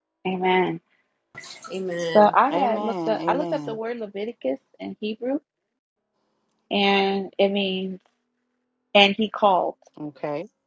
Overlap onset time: 2.1 s

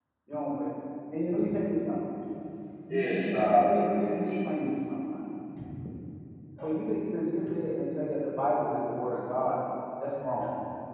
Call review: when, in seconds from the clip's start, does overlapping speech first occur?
2.9 s

